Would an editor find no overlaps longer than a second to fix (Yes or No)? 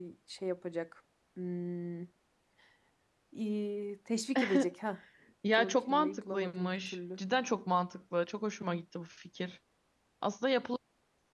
No